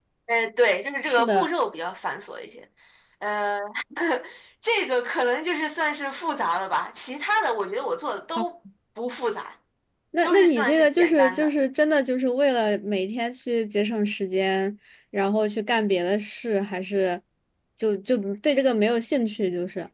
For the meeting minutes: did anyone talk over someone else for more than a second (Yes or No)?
Yes